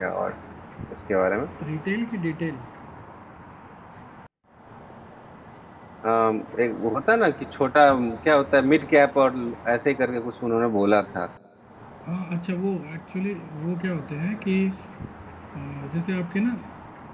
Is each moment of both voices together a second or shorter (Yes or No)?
Yes